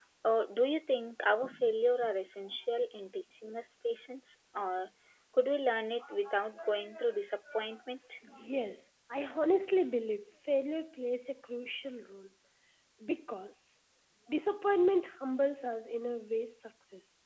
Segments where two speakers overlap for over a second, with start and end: none

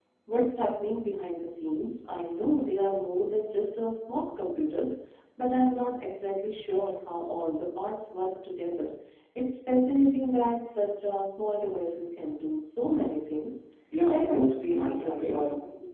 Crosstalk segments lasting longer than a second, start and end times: 14.1-15.3

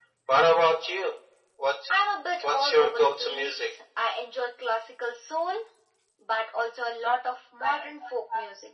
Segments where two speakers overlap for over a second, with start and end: 2.4-3.7

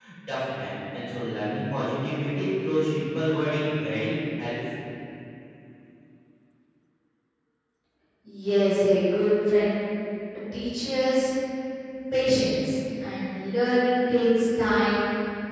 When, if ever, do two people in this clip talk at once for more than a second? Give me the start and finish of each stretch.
none

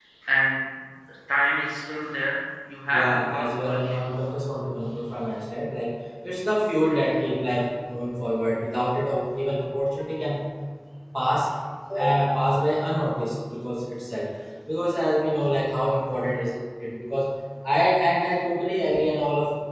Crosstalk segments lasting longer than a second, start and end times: 2.9-4.3

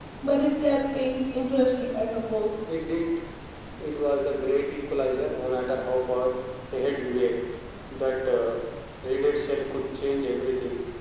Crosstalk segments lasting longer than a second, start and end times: none

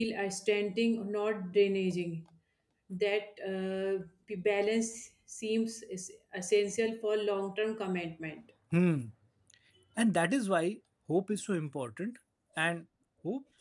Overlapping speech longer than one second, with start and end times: none

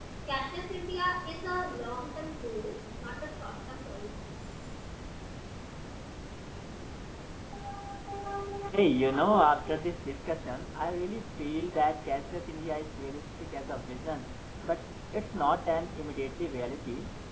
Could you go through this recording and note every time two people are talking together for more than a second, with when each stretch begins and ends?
none

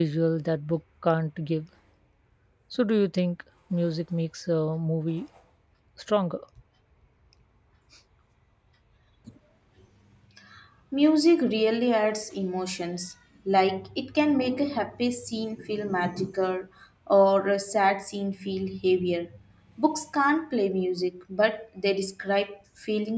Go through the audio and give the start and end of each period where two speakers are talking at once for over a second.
none

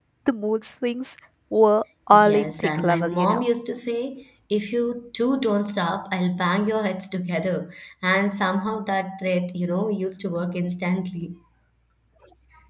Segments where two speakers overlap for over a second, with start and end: 2.1-3.5

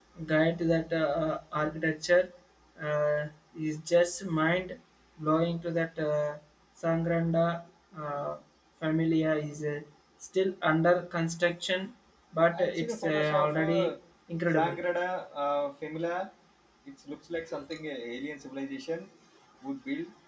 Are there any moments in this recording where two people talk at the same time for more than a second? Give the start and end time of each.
12.6-13.9

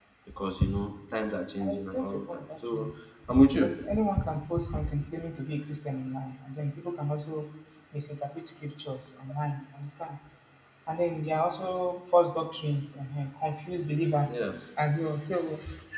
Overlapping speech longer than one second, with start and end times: 1.6-2.9

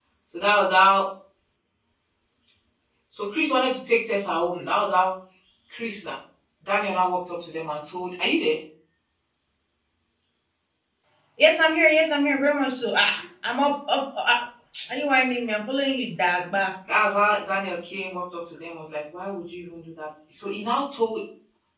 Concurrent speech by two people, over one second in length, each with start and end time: none

